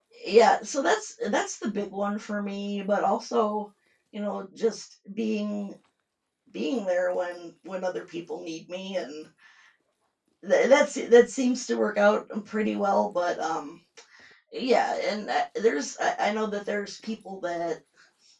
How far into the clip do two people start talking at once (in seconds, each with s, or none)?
none